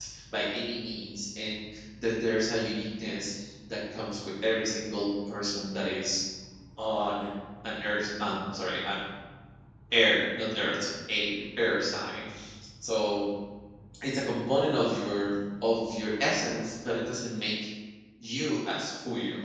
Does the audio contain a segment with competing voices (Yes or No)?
No